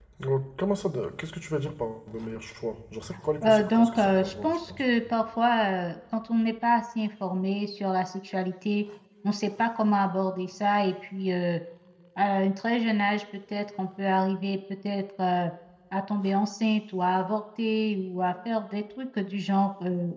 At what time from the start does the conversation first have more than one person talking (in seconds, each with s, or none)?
3.4 s